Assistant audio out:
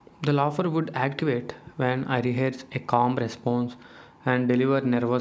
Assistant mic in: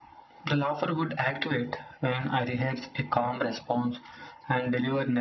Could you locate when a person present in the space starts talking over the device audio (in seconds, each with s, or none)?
none